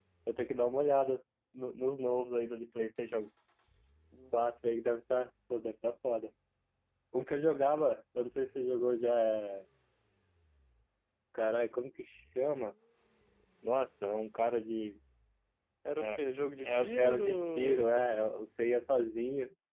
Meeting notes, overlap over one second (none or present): present